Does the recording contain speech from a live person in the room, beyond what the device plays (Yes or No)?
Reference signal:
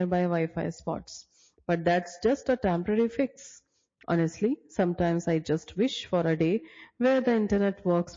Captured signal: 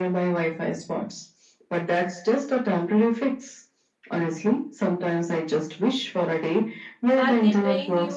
Yes